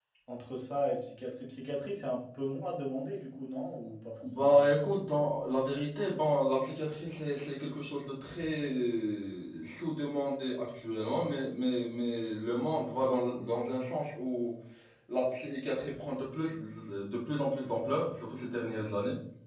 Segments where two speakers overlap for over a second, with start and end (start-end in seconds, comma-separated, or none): none